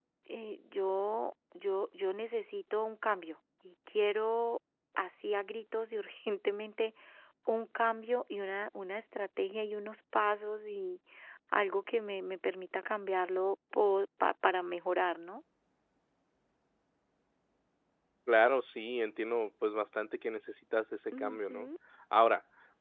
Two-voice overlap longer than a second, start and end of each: none

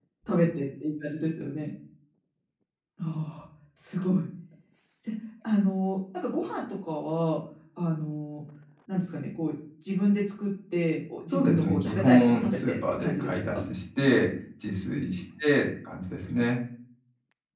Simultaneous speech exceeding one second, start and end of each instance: 11.3-13.6

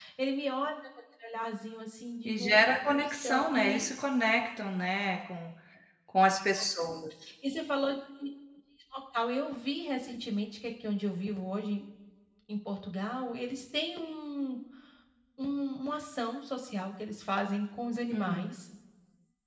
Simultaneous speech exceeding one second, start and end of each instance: 2.2-3.8

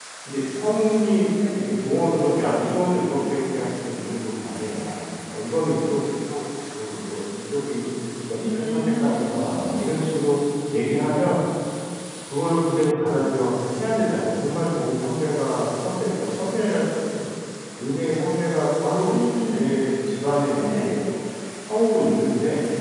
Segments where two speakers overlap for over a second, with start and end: 8.4-9.9

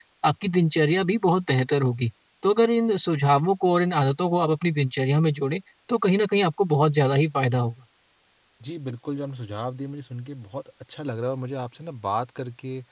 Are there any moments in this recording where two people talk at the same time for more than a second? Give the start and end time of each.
none

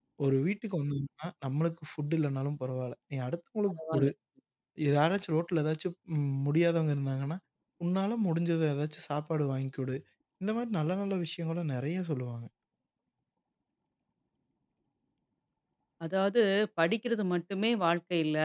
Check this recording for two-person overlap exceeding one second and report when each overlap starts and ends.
none

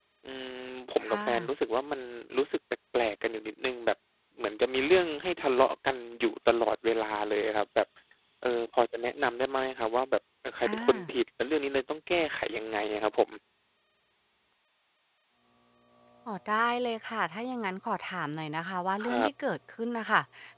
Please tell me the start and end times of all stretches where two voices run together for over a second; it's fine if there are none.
none

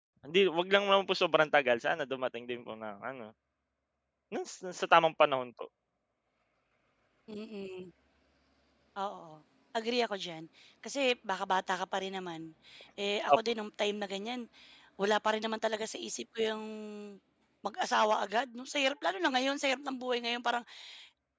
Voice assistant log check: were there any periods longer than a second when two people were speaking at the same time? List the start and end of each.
none

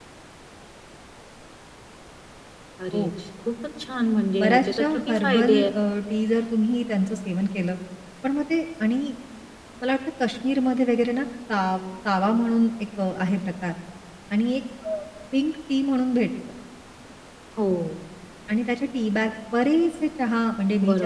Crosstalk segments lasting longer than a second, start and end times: 4.4-5.7

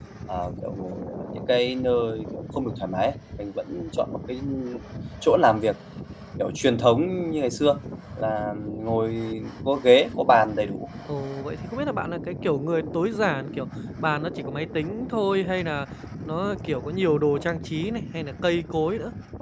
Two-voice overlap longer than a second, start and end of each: none

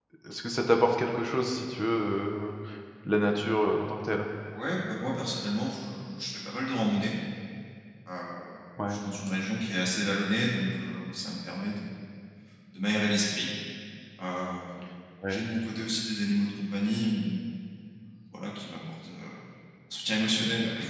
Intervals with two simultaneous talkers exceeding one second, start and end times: none

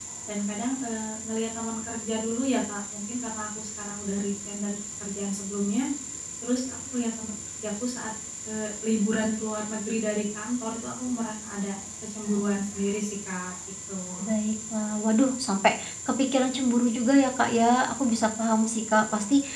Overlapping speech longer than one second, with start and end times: none

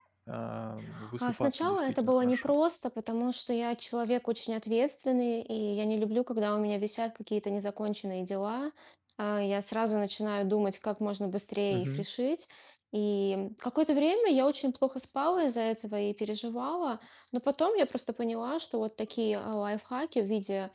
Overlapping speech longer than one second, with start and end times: 1.2-2.5

